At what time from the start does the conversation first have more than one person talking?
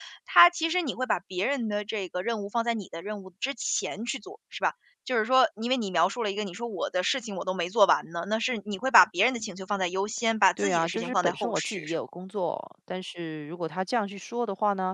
11 s

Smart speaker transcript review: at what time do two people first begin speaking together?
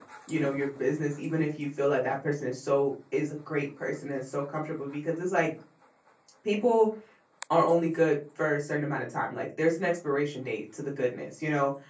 none

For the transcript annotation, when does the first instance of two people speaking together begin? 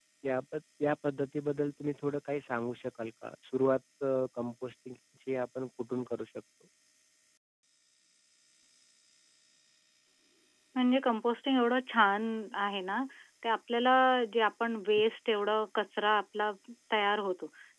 none

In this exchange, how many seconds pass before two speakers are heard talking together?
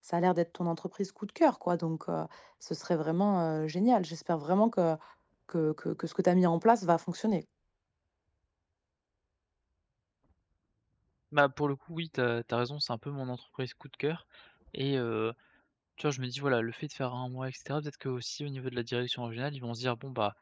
none

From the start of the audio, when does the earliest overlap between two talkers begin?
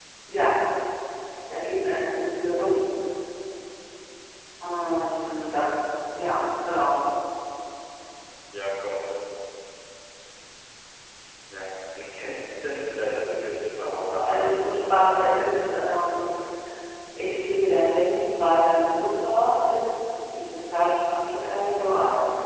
14 s

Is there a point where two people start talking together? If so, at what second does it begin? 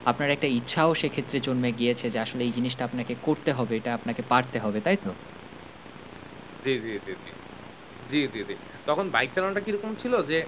none

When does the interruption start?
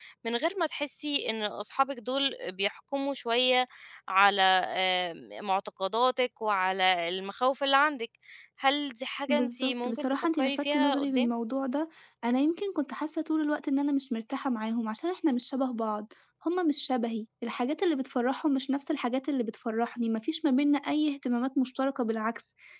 9 s

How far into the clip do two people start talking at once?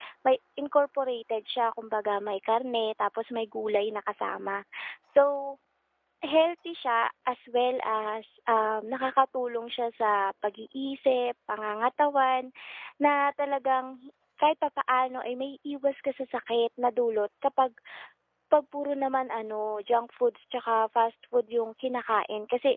none

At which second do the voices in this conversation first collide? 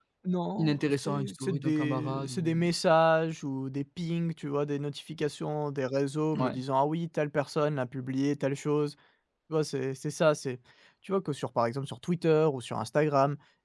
1 s

